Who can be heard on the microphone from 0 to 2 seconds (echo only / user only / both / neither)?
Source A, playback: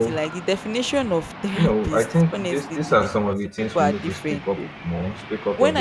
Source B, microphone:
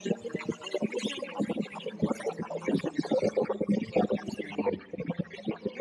echo only